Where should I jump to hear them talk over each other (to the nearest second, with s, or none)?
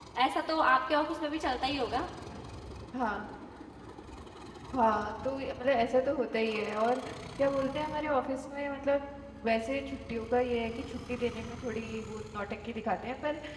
none